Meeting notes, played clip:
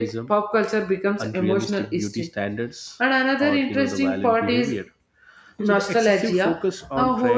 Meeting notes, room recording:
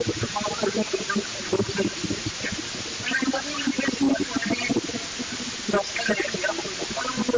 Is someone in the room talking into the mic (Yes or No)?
No